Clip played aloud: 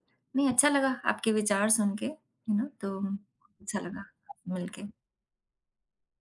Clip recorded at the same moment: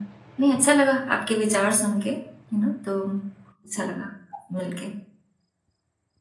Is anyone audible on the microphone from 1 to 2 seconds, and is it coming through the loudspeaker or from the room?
echo only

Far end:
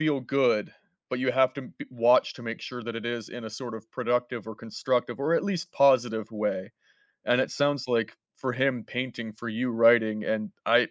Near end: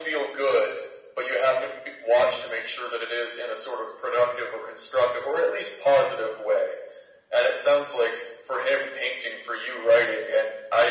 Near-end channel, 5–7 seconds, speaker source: echo only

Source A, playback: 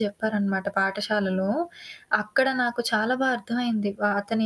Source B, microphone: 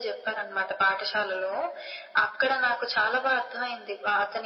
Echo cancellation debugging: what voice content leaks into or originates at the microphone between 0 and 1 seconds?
echo only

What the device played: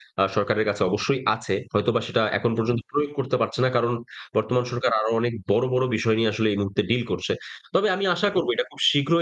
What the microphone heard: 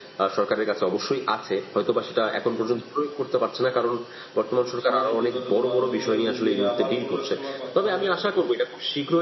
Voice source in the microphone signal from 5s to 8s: both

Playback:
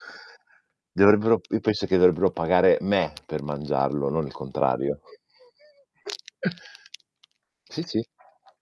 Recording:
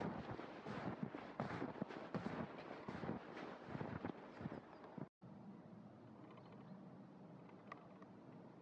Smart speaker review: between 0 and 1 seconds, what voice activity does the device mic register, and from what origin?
neither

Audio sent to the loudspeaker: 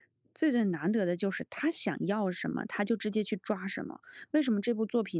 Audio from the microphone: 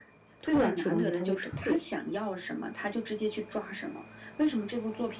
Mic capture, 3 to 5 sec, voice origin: echo only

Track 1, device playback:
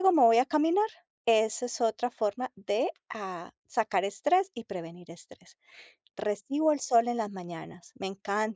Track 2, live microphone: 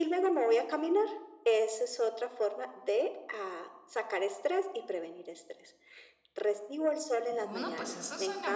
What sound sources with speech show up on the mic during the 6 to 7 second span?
echo only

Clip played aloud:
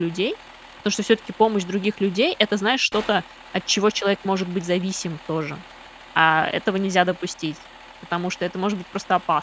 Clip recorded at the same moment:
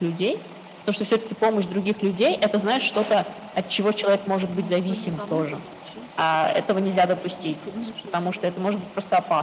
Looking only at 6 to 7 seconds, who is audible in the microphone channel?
both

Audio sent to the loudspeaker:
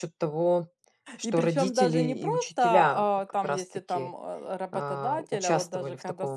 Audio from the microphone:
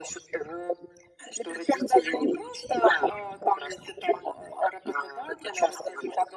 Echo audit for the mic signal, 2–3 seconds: echo only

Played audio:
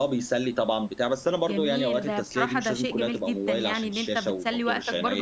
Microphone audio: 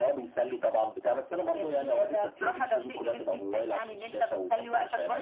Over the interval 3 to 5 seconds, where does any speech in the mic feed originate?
echo only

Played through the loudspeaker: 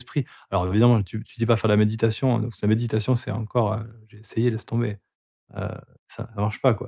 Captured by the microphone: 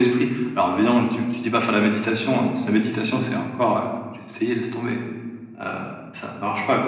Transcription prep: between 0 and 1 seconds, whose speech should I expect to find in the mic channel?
echo only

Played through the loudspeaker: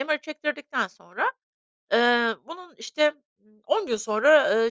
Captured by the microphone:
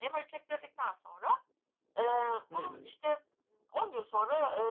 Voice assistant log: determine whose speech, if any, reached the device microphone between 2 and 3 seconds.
both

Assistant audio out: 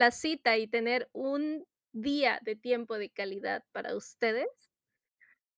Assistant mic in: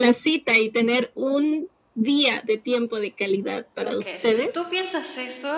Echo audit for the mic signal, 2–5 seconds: both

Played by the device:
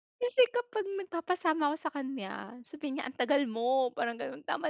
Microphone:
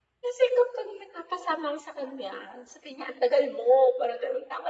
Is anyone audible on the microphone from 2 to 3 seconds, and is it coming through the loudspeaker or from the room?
echo only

